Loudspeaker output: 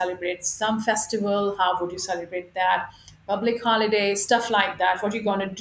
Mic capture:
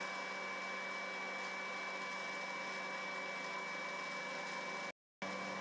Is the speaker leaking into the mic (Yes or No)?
No